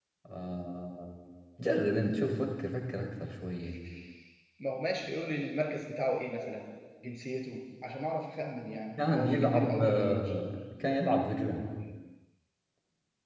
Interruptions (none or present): present